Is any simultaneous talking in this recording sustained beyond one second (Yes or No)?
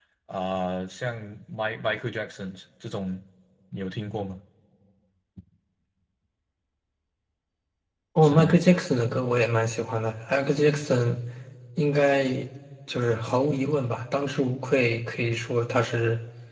No